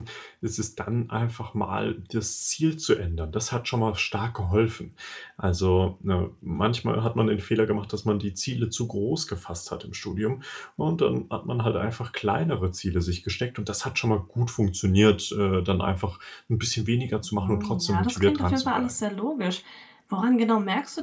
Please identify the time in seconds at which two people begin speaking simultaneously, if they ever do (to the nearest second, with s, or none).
17 s